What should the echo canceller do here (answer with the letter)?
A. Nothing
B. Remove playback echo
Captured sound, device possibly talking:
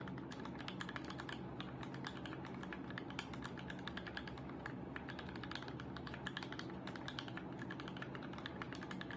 A